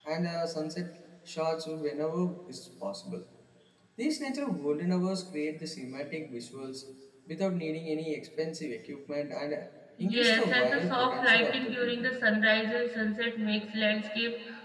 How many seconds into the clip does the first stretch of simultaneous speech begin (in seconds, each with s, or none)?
10.0 s